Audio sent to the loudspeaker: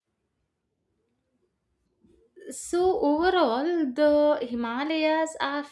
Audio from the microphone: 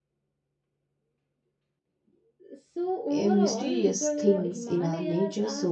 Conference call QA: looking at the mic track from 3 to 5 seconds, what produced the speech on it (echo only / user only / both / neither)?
both